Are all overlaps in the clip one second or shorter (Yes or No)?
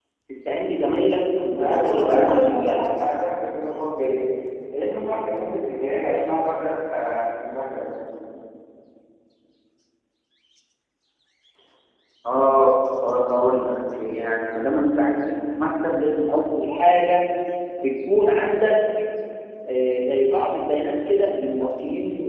No